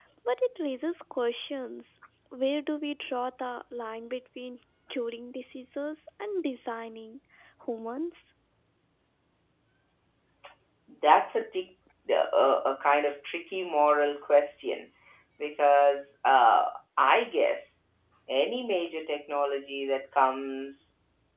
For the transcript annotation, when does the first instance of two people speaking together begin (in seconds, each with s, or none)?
none